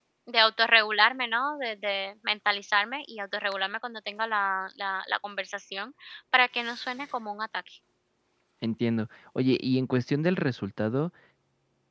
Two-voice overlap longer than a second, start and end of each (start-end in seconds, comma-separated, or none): none